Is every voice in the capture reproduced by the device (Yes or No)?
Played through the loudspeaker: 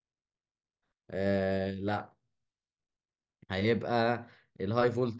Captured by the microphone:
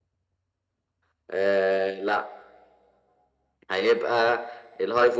Yes